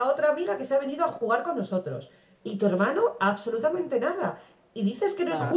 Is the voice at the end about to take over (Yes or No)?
No